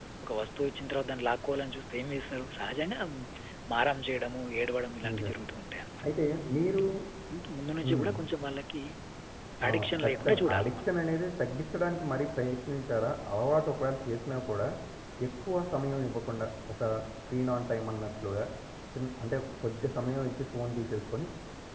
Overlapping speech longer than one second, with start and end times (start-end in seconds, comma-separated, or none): 9.7-10.9